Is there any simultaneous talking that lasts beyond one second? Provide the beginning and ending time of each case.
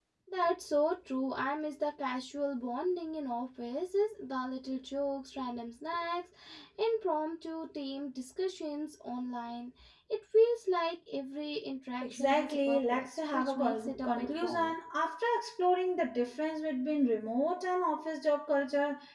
12.0-14.7

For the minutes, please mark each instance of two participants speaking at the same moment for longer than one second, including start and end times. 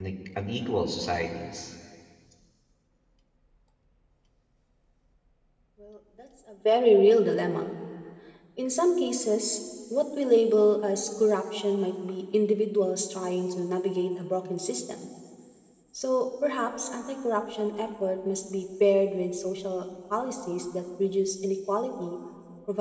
none

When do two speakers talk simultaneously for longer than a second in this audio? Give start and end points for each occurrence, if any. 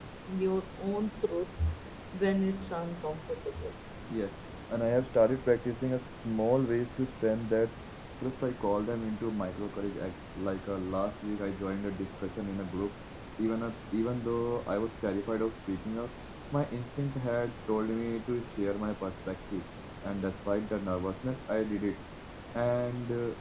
none

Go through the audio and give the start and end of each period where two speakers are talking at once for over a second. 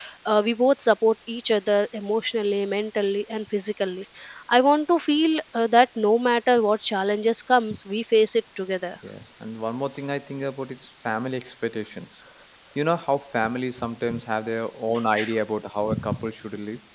none

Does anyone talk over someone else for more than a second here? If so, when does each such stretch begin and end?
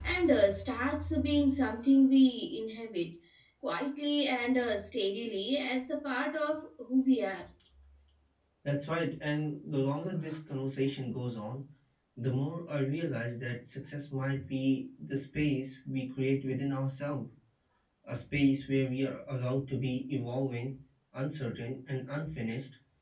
none

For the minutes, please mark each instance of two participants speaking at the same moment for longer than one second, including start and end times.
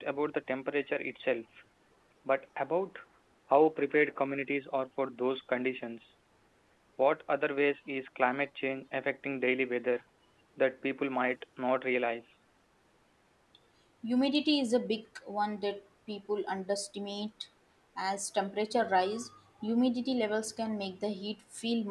none

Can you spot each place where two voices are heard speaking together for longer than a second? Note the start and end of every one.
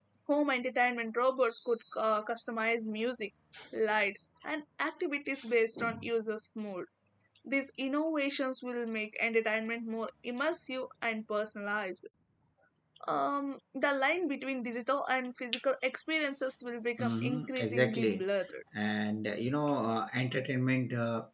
17.0-18.3

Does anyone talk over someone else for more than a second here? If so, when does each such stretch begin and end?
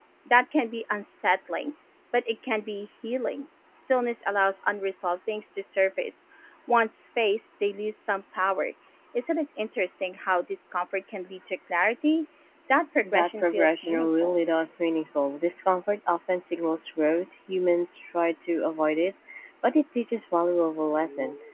13.0-14.3

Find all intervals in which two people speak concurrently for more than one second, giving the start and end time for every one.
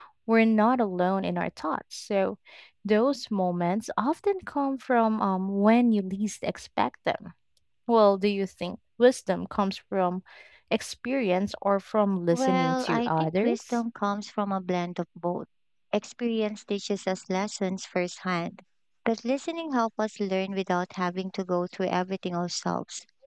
12.3-13.6

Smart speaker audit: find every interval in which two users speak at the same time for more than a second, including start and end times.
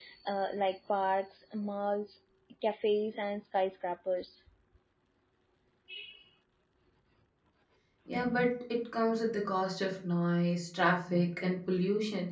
none

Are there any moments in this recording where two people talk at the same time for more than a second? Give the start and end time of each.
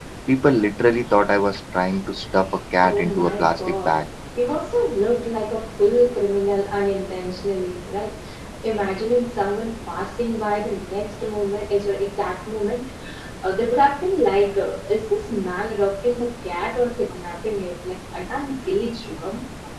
2.8-4.0

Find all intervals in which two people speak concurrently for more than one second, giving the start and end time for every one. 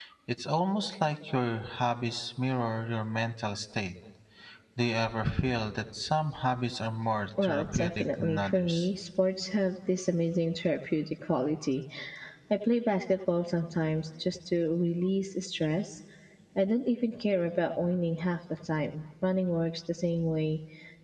7.4-8.9

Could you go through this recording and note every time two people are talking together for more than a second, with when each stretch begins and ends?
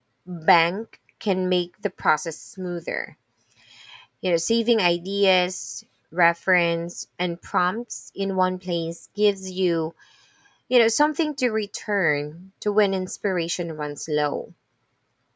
none

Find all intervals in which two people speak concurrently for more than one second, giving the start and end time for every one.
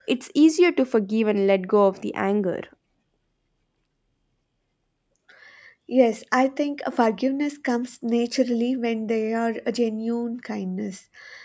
none

